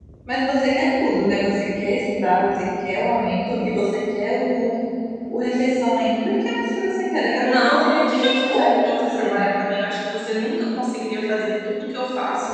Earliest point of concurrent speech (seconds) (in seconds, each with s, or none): 7.4 s